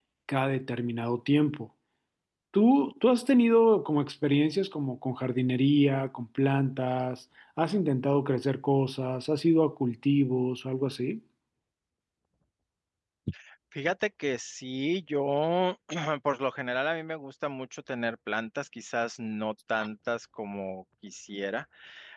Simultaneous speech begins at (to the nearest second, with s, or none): none